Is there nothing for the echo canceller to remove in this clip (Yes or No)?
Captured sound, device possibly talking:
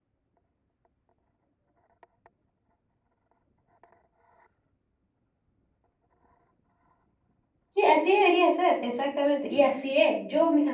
Yes